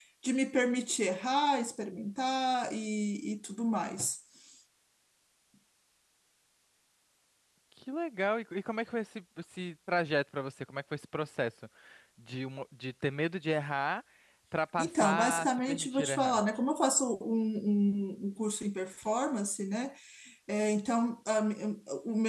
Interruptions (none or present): present